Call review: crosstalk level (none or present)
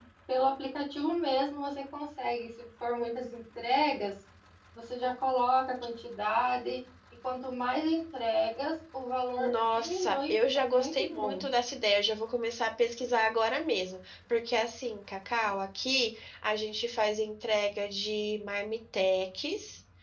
present